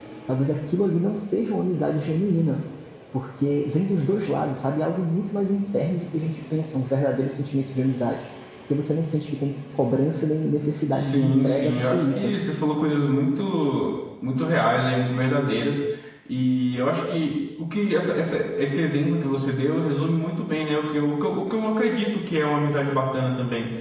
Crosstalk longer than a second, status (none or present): present